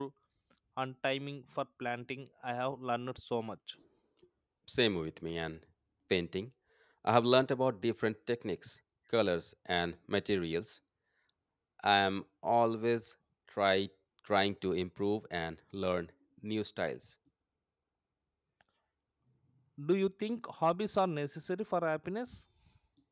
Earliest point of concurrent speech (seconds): none

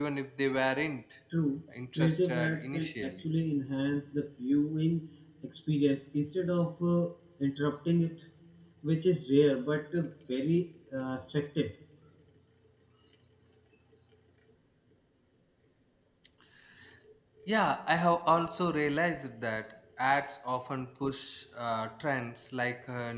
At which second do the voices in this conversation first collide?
2.0 s

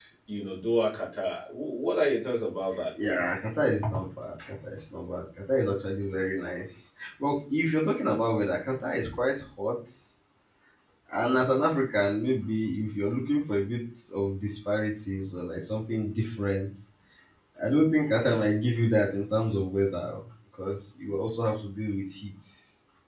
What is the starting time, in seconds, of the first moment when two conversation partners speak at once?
none

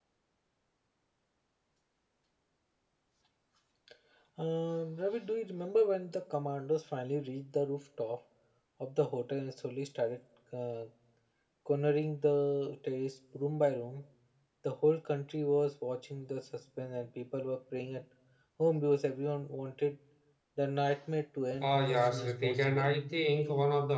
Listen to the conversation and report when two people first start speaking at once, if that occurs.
21.6 s

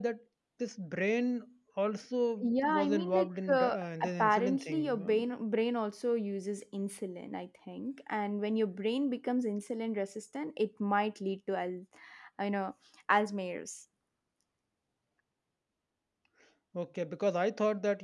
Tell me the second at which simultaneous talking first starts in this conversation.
2.4 s

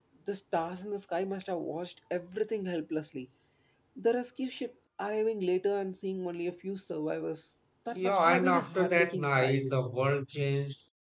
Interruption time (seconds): 7.9 s

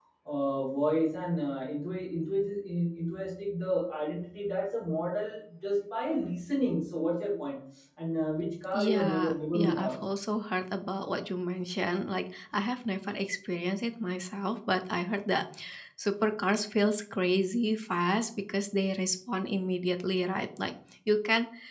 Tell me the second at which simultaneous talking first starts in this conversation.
8.7 s

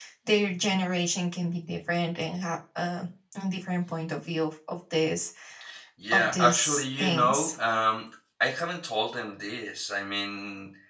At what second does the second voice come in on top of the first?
6.1 s

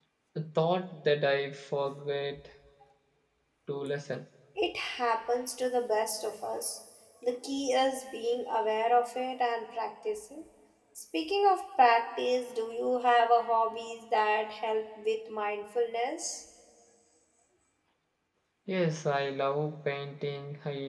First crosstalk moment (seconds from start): none

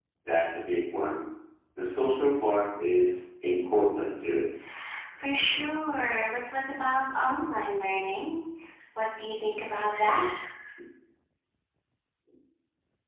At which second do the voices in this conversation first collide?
none

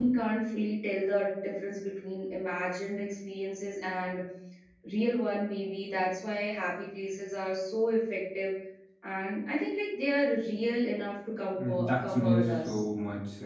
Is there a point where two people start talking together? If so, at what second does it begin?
11.6 s

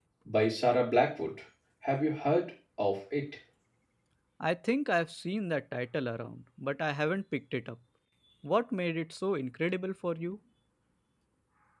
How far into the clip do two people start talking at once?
none

